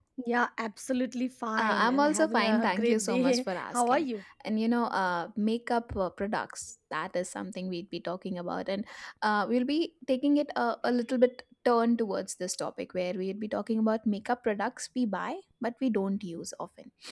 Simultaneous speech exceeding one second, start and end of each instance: 1.6-4.1

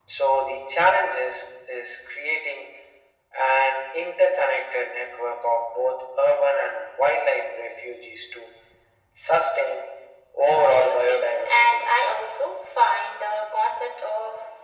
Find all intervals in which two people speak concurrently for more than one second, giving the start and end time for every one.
10.6-11.8

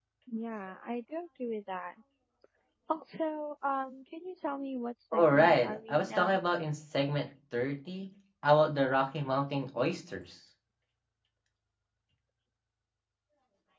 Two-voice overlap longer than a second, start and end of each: 5.1-6.4

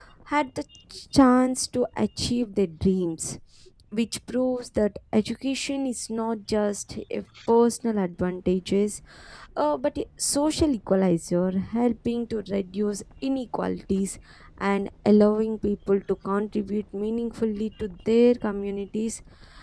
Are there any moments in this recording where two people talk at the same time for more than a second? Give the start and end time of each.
none

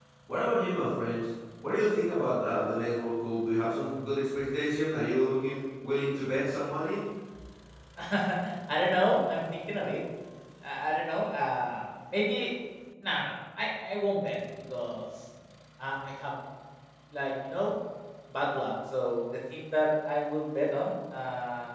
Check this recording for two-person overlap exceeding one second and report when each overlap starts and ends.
none

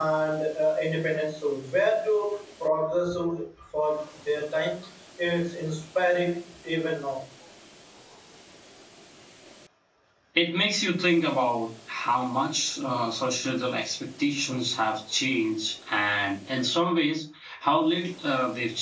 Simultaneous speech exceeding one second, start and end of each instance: none

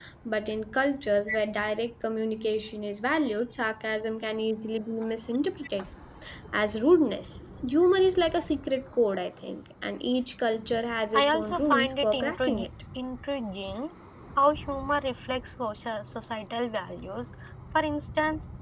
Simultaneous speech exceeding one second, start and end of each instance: 11.1-12.7

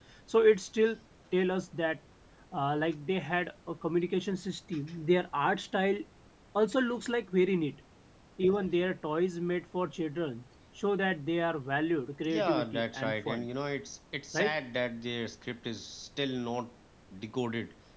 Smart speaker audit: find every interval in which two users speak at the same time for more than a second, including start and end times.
12.2-13.5

